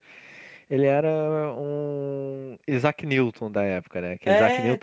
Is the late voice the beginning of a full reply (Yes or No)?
No